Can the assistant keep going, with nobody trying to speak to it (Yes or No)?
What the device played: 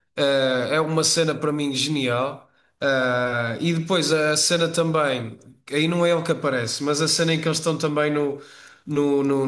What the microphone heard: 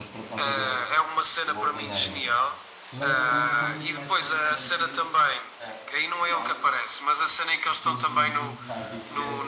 No